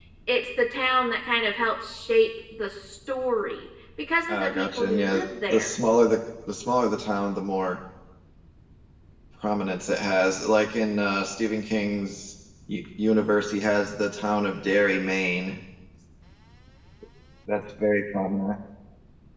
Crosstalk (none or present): present